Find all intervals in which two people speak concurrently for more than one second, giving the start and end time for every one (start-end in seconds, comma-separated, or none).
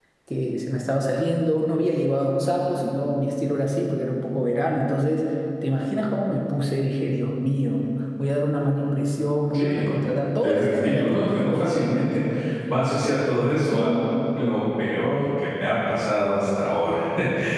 10.4-12.2